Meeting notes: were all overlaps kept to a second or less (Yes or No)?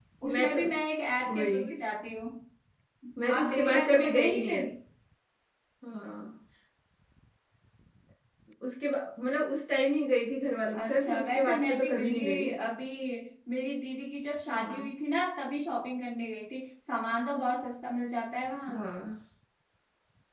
No